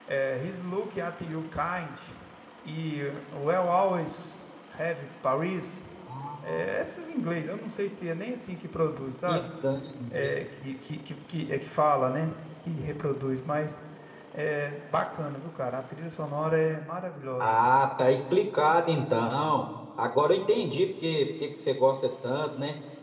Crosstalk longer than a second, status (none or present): none